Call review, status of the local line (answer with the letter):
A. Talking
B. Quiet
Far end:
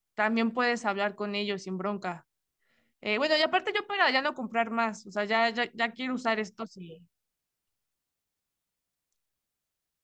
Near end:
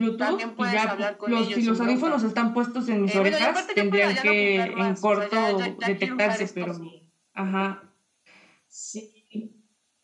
A